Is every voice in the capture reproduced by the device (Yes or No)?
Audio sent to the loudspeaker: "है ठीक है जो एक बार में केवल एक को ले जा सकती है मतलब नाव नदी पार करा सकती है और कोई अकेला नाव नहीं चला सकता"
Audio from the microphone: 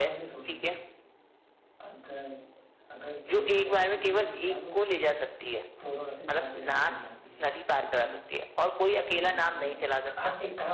No